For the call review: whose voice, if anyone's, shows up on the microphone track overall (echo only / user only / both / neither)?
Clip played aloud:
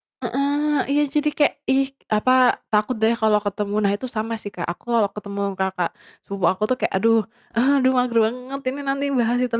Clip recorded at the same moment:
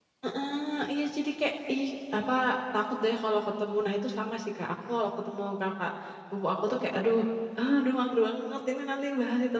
echo only